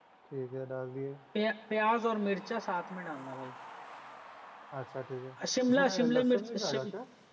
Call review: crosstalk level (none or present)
present